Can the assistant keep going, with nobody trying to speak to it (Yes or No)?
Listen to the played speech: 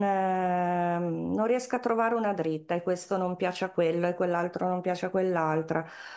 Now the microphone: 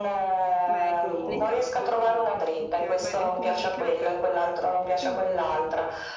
No